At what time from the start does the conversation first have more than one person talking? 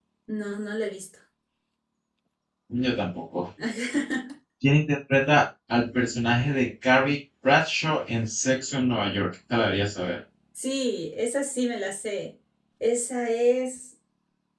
none

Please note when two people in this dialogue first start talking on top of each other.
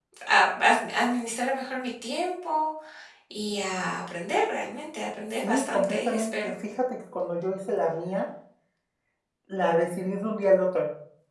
5.3 s

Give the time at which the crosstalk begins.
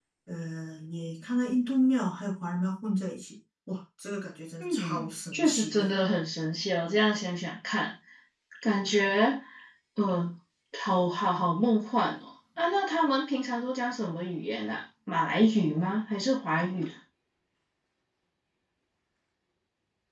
4.6 s

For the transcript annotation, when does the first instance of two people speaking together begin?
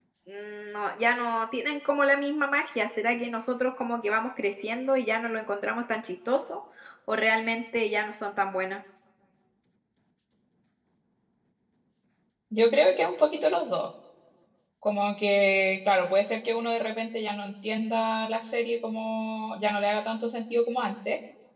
none

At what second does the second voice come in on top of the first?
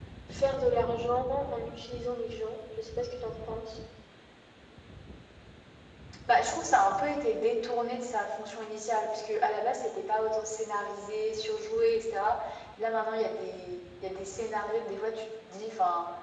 none

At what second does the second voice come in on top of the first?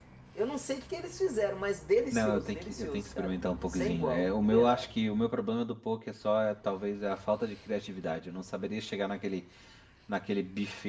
2.1 s

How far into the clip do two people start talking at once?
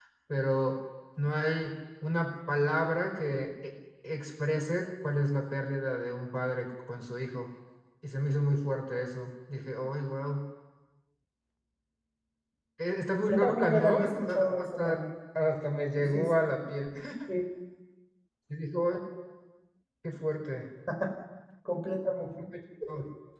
13.3 s

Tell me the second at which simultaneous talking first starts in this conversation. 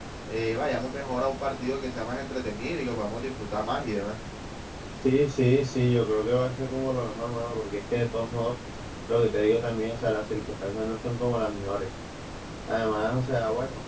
none

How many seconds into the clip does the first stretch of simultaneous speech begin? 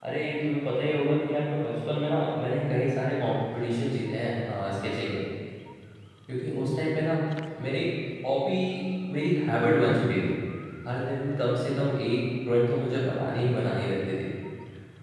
none

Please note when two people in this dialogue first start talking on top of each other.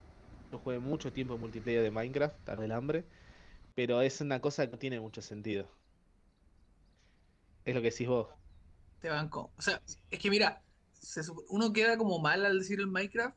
none

